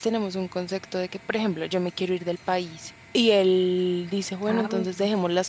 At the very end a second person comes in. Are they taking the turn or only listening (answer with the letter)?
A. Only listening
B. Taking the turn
A